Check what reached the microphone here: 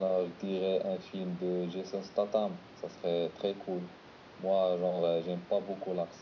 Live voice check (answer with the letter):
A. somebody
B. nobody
B